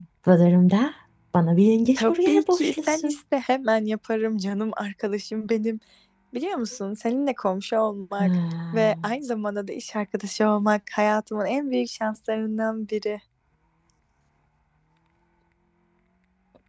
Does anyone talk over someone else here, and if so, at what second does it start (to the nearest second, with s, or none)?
2 s